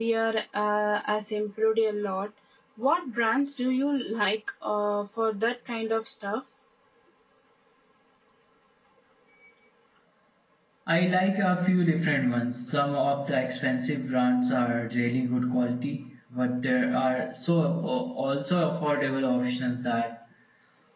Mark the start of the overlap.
none

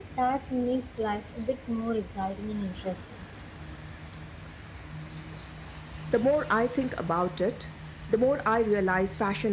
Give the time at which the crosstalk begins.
none

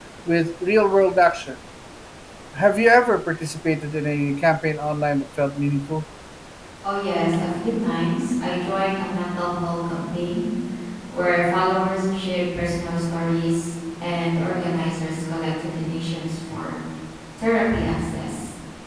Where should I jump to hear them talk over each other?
none

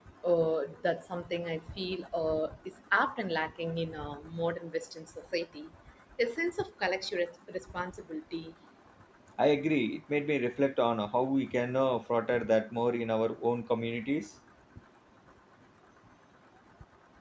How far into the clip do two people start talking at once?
none

